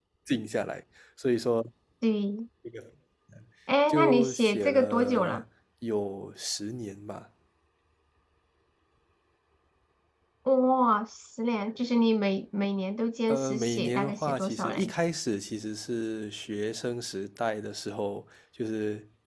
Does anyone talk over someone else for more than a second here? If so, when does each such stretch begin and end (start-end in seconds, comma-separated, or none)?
3.9-5.4, 13.3-14.9